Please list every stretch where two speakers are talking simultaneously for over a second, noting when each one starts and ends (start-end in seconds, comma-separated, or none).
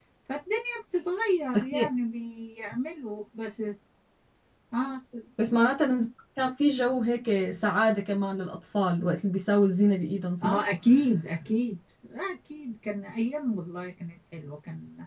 none